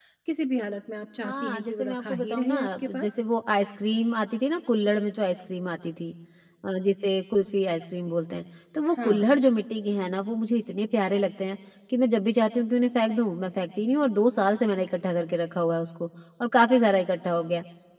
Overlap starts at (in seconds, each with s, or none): 1.2 s